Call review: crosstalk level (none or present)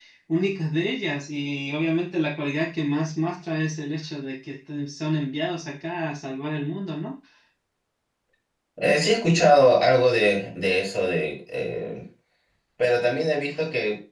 none